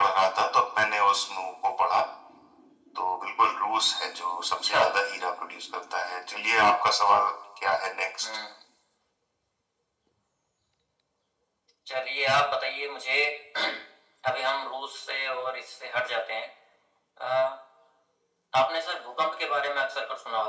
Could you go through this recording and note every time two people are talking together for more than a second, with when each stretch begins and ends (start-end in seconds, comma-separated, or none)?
none